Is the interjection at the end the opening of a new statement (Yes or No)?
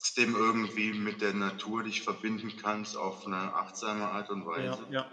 Yes